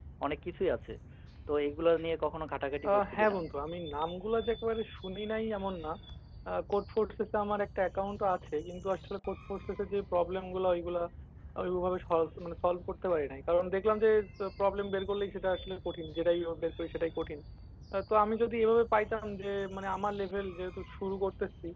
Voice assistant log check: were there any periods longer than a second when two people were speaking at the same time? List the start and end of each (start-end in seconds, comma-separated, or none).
none